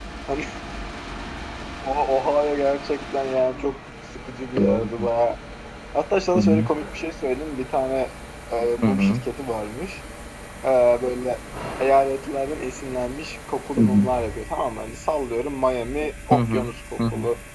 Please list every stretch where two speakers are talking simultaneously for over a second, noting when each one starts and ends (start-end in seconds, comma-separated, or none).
none